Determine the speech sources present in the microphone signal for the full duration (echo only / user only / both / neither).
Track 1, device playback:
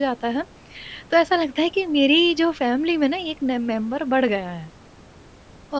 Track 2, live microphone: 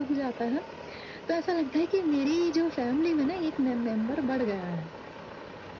echo only